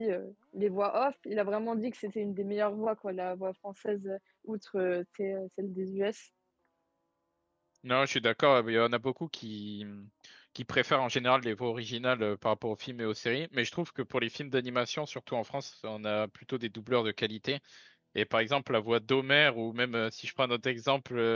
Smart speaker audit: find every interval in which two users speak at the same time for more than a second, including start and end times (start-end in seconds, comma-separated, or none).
none